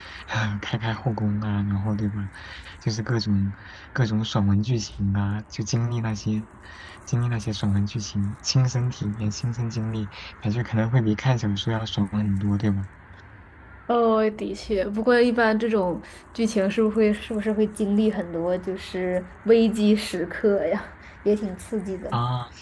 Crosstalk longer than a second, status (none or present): none